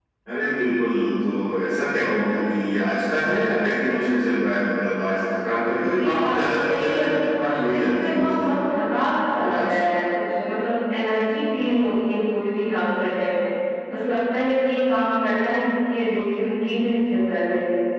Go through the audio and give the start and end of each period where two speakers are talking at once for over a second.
5.9-8.6

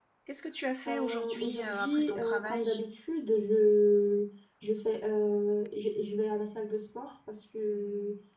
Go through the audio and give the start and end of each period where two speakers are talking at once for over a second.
0.9-2.7

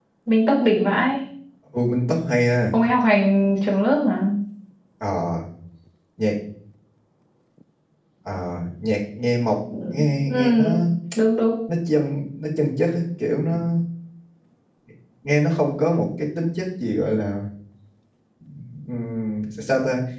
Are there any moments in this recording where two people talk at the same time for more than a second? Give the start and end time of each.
none

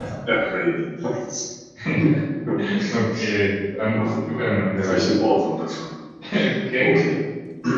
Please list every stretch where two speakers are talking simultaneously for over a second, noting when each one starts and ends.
3.8-5.2

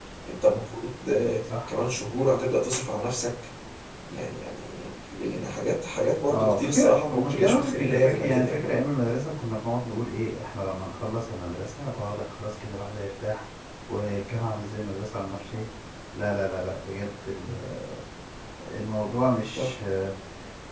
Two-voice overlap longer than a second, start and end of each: 6.3-8.7

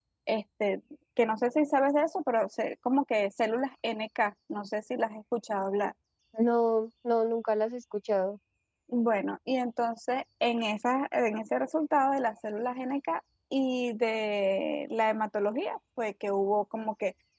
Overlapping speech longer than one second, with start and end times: none

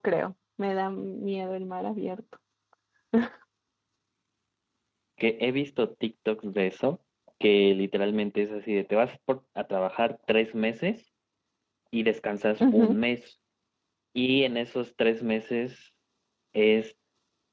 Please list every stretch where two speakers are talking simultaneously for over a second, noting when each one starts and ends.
none

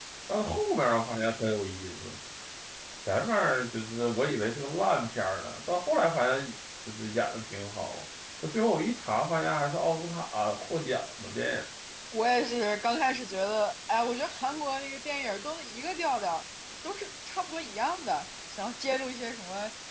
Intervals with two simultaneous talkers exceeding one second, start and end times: none

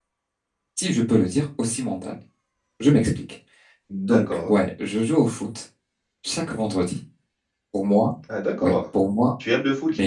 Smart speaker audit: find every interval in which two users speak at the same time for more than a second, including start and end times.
none

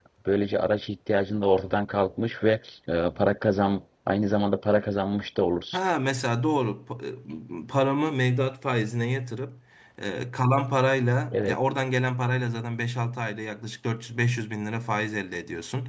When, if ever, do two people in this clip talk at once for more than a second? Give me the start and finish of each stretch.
none

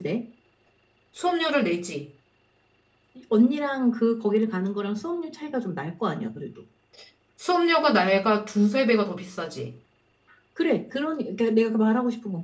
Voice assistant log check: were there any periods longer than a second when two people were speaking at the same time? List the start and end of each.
none

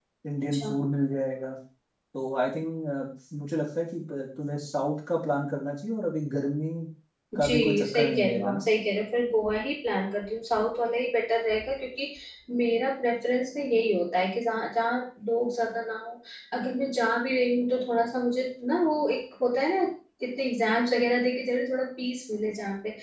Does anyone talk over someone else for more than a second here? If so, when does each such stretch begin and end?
7.4-8.6

